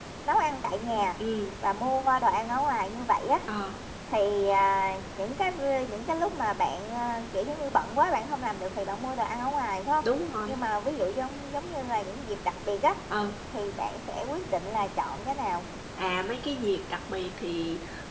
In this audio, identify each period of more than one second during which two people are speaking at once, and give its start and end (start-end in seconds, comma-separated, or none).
none